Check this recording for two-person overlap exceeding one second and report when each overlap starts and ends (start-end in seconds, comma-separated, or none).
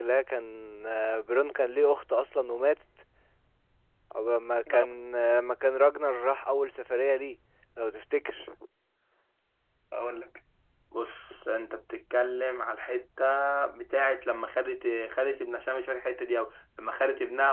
none